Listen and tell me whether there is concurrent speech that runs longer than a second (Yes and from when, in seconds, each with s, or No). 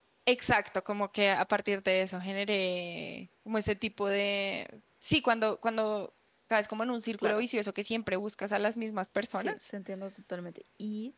No